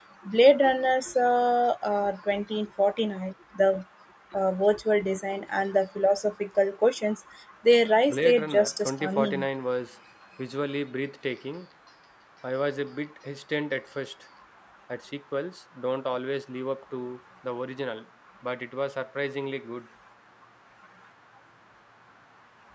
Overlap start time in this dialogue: 8.1 s

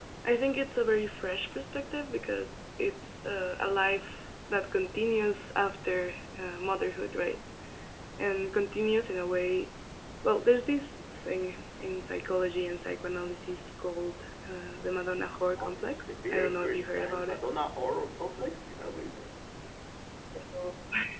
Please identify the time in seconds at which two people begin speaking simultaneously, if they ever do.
15.2 s

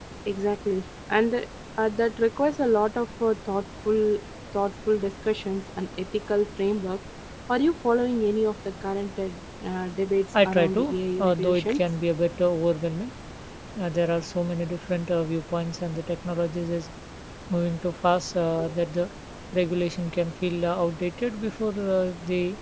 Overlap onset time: 10.3 s

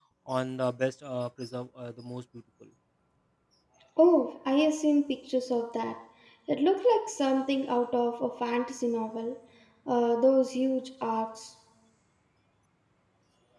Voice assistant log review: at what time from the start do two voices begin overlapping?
none

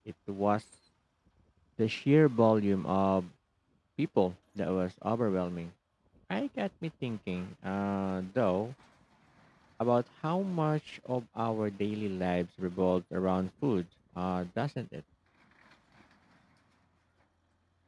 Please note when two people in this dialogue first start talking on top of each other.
none

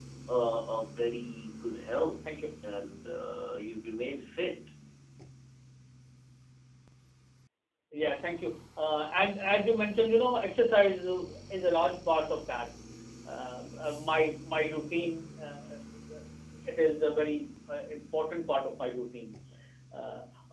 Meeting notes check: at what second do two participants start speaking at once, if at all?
none

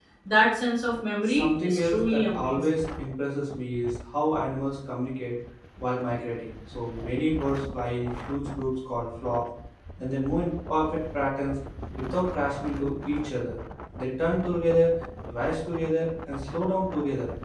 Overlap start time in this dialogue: 1.2 s

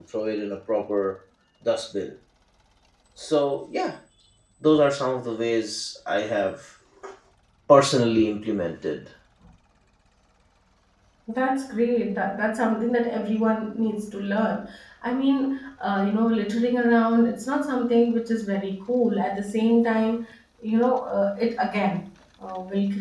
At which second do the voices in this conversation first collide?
none

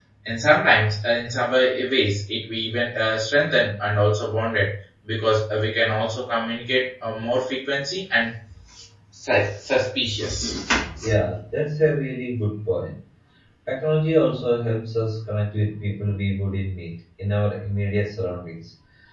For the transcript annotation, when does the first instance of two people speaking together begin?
none

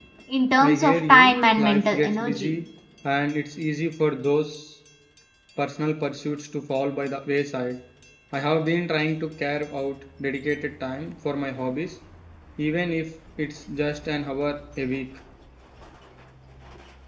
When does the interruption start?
0.6 s

